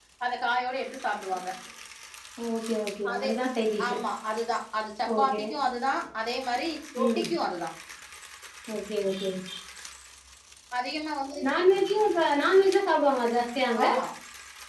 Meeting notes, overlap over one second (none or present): none